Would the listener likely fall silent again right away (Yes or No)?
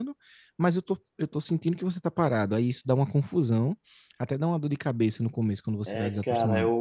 No